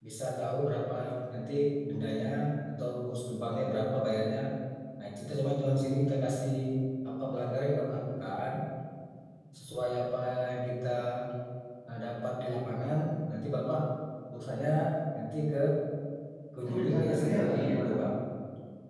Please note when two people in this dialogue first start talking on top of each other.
16.6 s

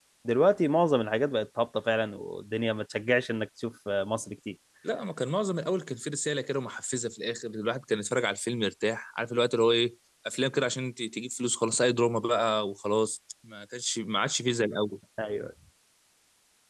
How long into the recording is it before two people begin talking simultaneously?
none

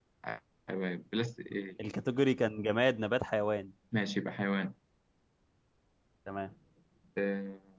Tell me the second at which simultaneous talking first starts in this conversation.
none

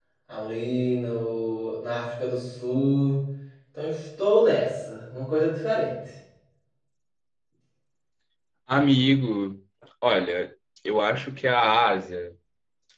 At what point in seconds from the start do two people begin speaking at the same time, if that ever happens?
none

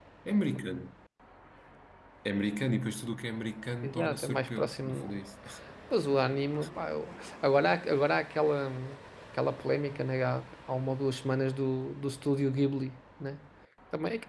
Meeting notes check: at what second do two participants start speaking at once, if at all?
3.8 s

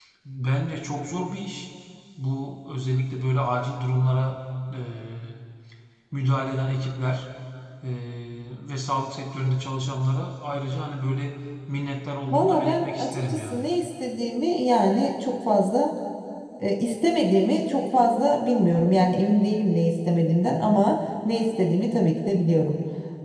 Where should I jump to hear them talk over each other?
12.3 s

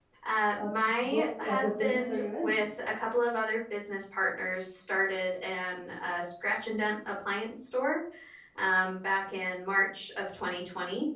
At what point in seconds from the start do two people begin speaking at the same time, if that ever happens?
0.5 s

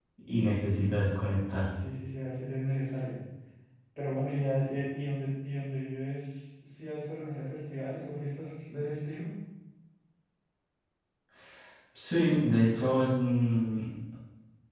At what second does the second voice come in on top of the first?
none

